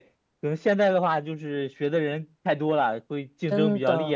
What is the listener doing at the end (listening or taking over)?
taking over